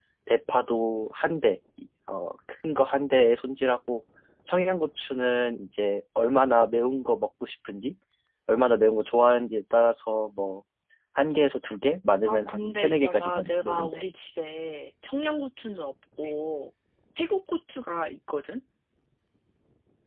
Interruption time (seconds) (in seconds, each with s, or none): 12.2 s